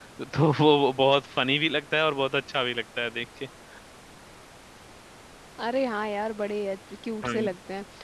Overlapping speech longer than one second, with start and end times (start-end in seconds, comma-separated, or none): none